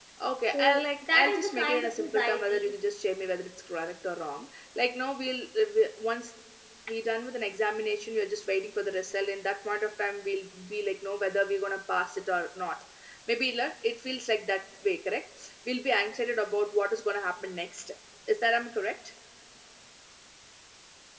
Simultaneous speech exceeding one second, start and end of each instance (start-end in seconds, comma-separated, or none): 0.5-2.8